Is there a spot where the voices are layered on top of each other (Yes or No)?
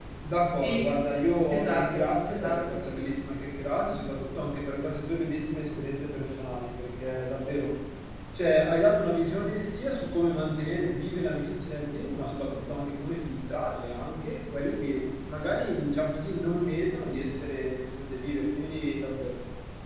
Yes